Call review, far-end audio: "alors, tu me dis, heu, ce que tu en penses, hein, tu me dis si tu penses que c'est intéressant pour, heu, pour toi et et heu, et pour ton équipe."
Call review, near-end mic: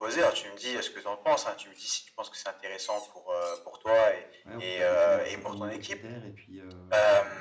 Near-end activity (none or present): present